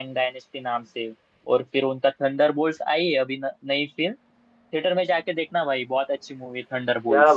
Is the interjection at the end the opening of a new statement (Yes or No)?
Yes